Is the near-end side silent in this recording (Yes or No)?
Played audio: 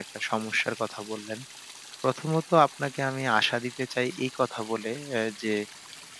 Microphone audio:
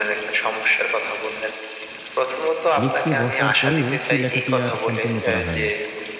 No